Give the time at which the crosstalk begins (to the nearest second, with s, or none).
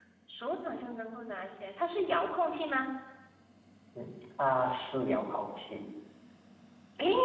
none